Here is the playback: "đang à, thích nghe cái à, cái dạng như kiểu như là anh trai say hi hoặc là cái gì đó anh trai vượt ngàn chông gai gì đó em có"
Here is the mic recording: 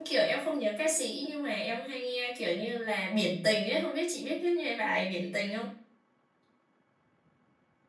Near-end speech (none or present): present